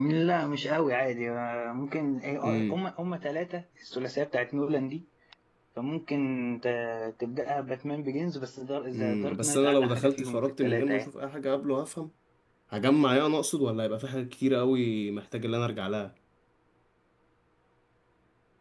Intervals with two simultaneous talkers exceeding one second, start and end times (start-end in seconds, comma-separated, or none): 8.9-11.1